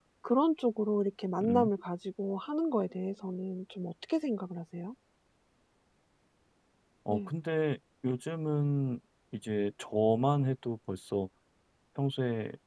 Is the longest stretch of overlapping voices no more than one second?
Yes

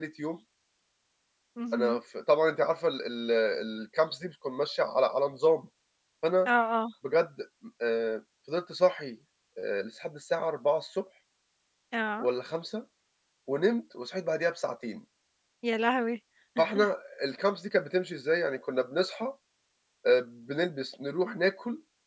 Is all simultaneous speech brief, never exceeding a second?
Yes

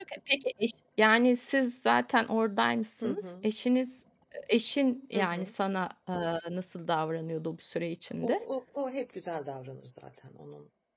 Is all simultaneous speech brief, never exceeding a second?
Yes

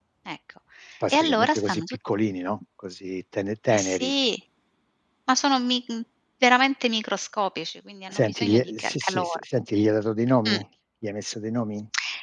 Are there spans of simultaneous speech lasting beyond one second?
Yes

